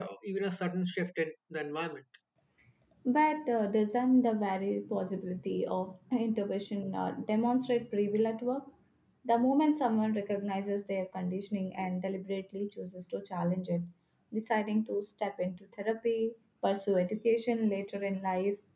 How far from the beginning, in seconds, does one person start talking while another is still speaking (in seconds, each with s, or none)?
none